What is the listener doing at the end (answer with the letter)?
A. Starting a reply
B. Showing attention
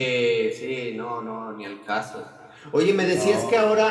B